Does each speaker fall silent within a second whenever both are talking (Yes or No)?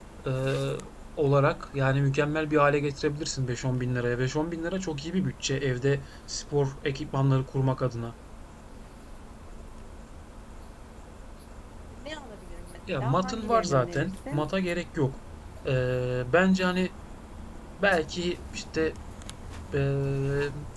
No